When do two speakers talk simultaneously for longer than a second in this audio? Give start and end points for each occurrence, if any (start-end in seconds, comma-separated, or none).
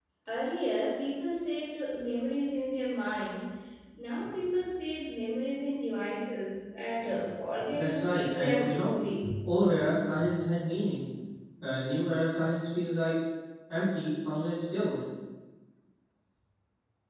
7.7-8.9